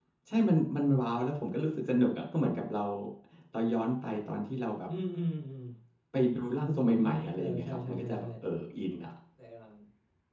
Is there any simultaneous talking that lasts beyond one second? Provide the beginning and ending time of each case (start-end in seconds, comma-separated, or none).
7.0-8.3